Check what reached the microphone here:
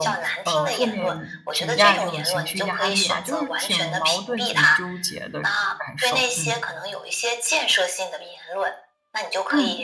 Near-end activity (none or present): present